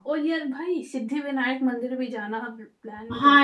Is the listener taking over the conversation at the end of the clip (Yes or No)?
Yes